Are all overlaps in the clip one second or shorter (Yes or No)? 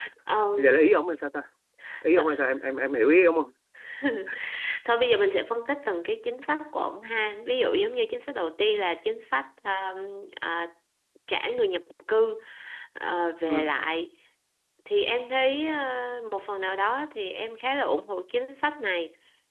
Yes